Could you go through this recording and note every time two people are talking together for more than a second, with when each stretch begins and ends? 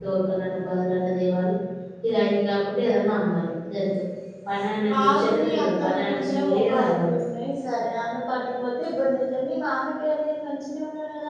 4.9-7.2

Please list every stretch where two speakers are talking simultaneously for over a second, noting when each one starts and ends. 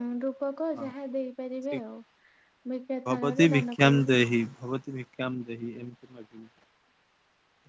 3.1-4.3

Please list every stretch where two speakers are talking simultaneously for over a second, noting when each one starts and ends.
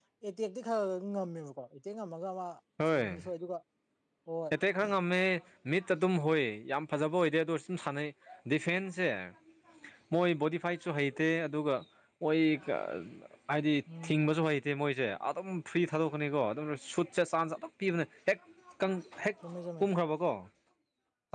none

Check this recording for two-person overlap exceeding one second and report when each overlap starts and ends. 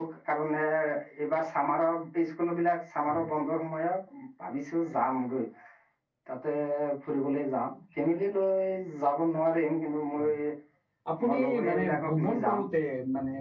11.3-12.6

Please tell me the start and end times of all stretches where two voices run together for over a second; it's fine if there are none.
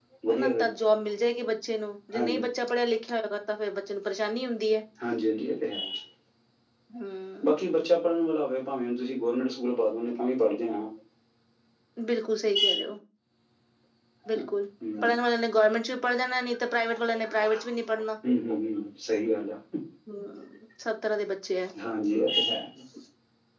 none

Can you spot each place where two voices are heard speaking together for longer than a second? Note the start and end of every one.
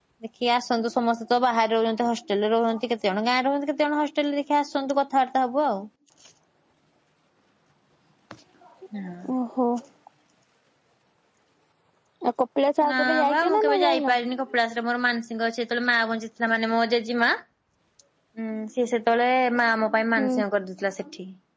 12.9-14.1

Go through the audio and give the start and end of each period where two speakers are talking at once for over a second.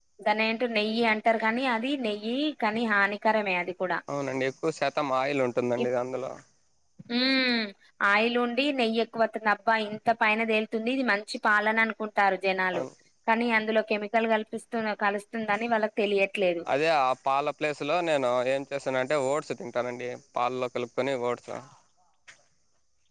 none

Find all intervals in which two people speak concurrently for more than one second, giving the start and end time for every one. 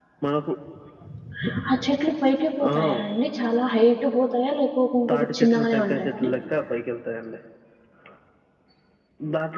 5.1-6.3

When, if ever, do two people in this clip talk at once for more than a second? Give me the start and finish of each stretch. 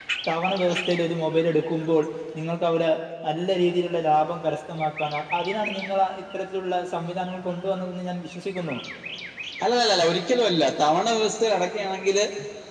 none

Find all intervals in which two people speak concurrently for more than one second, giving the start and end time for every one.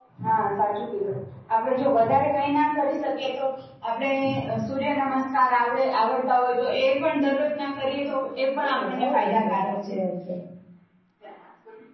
8.6-9.9

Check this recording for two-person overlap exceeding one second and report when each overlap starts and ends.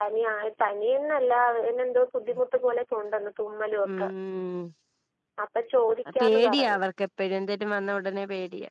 none

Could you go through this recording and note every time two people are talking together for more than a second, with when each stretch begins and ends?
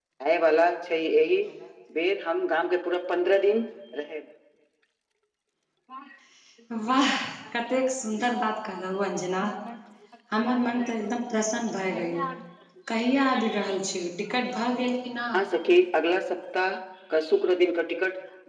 none

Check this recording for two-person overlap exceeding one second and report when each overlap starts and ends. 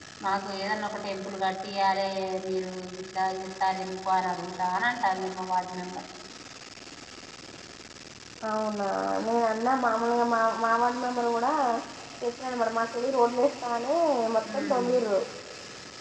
none

